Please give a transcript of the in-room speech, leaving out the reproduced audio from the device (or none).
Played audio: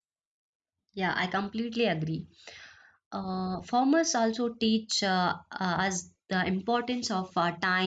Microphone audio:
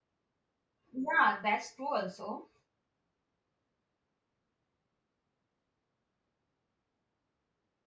Yeah, that's true also.